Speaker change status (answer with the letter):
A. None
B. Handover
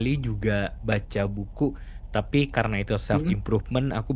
A